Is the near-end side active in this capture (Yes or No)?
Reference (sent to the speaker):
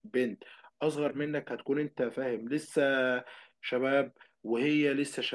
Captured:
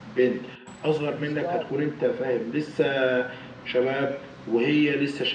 Yes